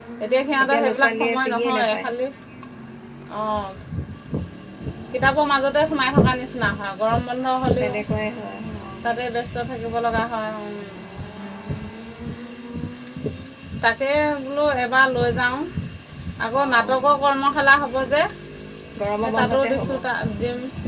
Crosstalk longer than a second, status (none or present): present